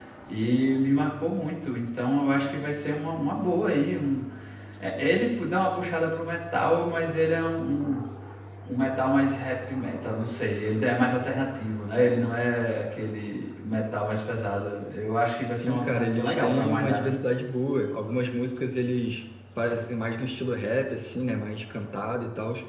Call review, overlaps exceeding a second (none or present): present